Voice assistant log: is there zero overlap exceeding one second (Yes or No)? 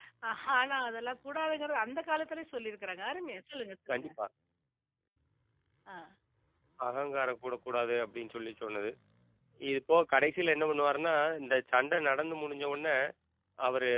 Yes